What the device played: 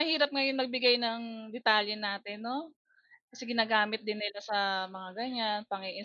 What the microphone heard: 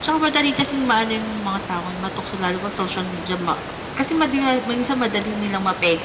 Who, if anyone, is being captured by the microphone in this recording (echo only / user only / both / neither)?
user only